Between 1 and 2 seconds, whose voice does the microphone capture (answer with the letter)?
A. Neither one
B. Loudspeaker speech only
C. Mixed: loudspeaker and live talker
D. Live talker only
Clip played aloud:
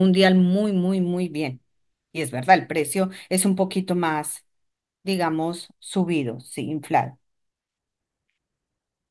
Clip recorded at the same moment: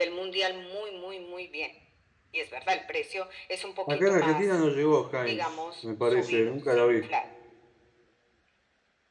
B